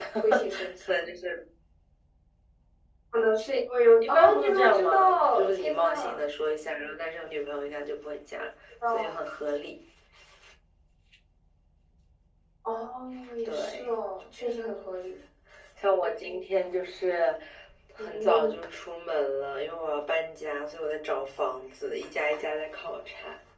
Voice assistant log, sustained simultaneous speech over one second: present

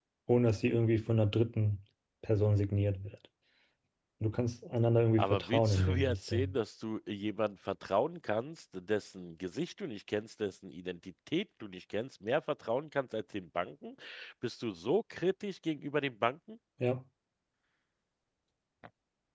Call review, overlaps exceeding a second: present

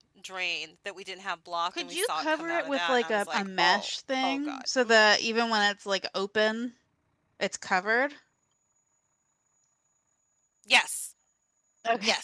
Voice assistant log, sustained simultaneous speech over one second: present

